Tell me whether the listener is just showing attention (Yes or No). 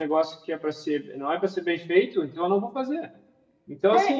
Yes